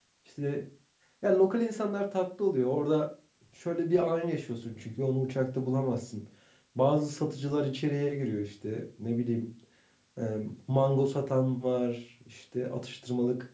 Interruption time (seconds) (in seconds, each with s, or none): none